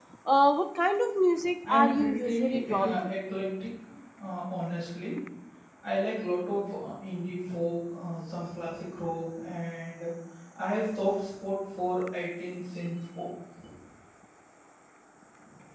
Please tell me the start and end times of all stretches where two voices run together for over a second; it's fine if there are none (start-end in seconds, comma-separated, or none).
1.7-3.1